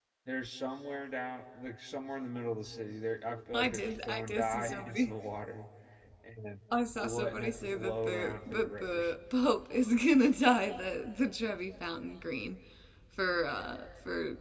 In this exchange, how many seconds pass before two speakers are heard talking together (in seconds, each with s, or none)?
3.5 s